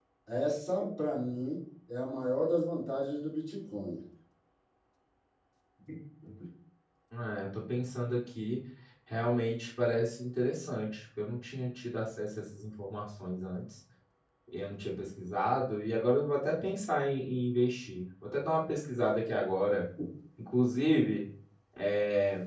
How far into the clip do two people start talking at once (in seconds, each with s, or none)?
none